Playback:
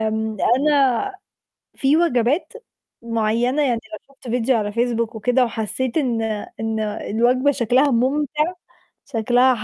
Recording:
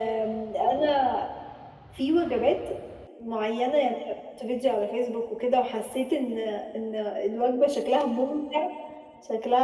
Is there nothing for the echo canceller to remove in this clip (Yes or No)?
No